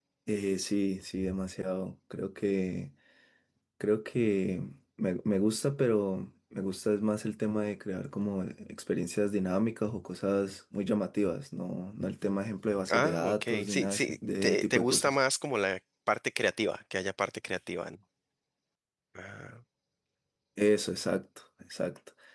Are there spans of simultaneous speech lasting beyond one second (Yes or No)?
Yes